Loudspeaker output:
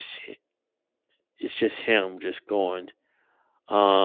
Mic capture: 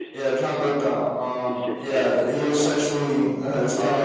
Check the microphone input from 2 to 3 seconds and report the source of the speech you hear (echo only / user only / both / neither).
both